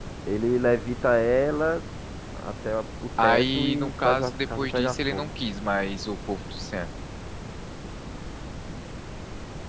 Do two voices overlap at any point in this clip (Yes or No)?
Yes